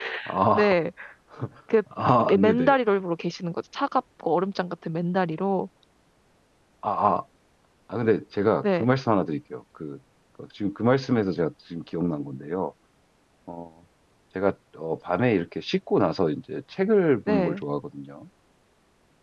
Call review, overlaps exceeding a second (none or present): none